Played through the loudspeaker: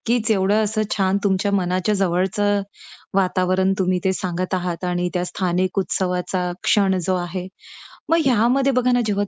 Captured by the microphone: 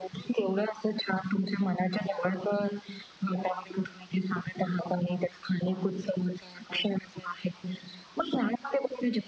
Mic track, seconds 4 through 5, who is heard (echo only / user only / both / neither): echo only